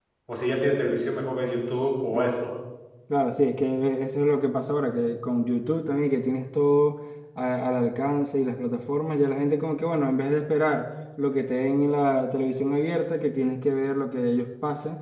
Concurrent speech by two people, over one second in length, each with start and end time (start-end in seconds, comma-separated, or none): none